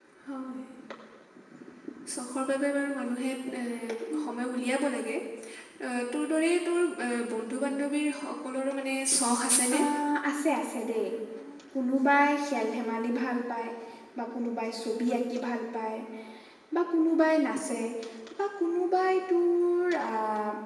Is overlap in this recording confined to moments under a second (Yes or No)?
Yes